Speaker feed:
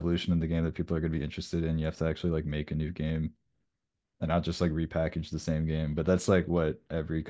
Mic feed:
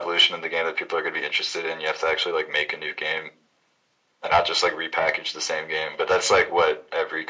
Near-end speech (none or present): none